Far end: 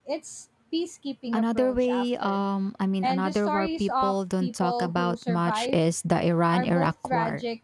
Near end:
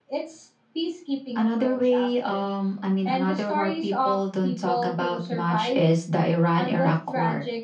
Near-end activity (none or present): none